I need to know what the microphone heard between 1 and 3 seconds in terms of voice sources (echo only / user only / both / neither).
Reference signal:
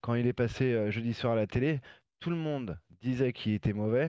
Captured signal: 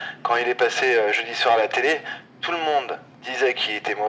echo only